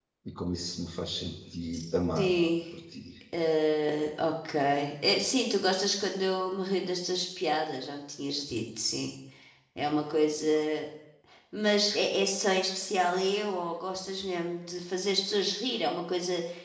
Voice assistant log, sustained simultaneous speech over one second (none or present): none